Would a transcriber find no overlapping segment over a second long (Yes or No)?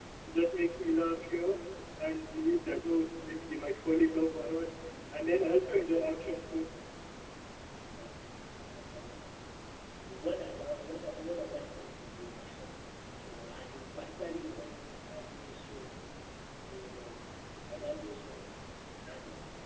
Yes